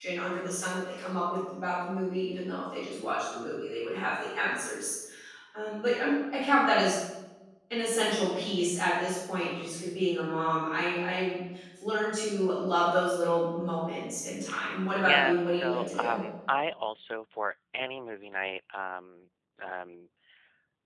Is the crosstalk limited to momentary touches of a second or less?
No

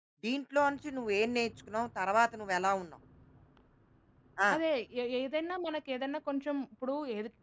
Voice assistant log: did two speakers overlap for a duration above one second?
No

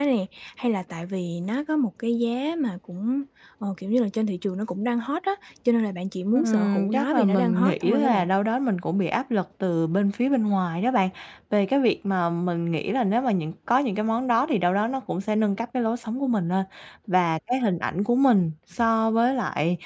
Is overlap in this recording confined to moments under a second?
No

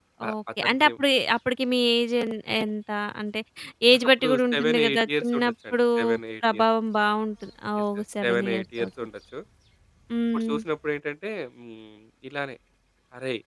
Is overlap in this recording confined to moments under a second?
No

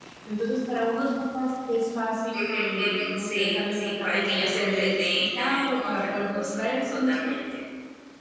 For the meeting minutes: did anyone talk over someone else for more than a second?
Yes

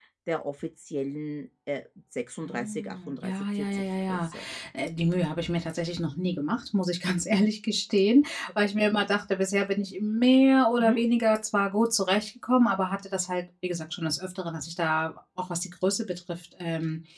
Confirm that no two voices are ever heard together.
No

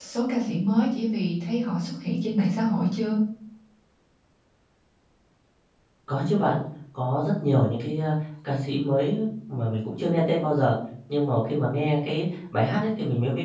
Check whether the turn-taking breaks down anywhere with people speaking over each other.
No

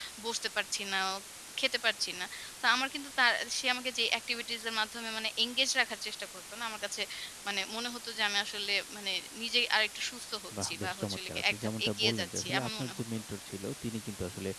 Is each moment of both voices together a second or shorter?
No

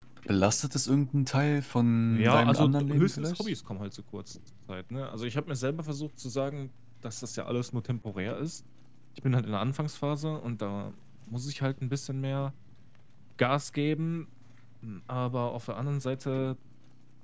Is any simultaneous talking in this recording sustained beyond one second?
Yes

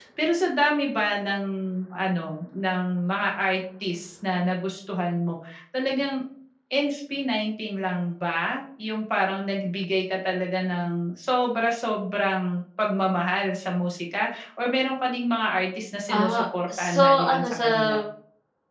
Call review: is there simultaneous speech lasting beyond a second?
Yes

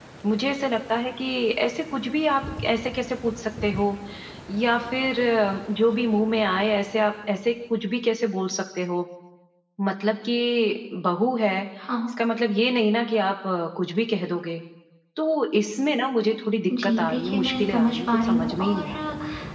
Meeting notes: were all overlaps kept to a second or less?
No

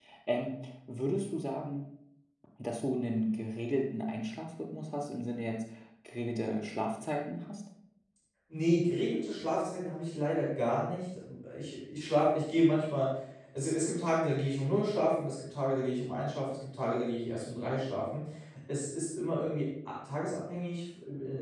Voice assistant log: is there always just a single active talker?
Yes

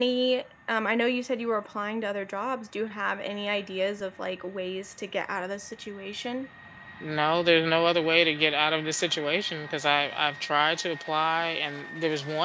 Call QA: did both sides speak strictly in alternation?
Yes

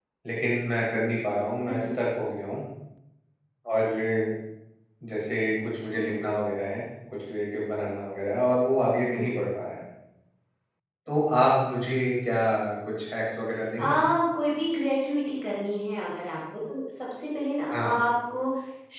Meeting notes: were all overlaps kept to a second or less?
Yes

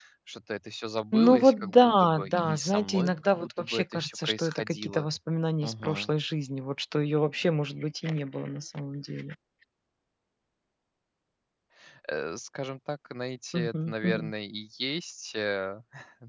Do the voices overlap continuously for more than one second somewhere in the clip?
Yes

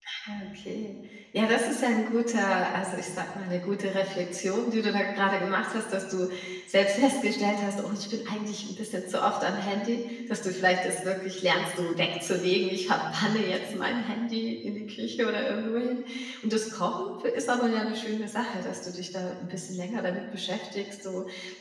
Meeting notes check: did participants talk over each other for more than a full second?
No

